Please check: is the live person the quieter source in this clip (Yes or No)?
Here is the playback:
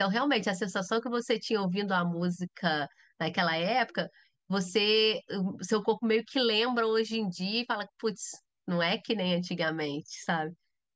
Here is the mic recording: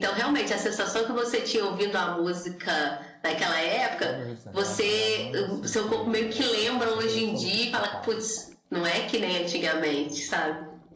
Yes